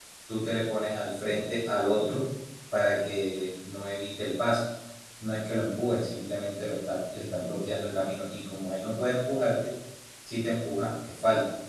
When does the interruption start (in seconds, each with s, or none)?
none